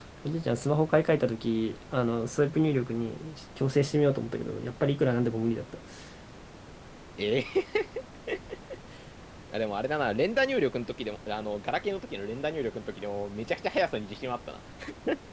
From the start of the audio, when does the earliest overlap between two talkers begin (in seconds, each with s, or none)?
none